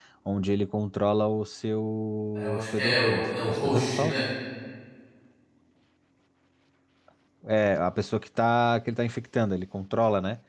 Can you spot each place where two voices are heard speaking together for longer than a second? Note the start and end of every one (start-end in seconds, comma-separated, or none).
2.4-4.2